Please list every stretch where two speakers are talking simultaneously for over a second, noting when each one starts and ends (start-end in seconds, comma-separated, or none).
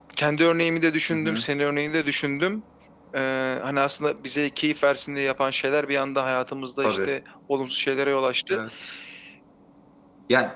none